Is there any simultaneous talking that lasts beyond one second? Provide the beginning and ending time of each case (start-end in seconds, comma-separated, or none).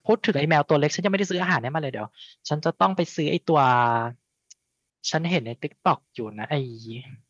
none